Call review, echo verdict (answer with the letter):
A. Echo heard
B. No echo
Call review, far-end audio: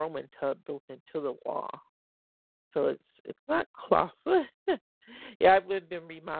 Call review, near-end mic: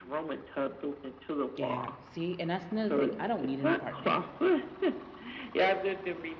A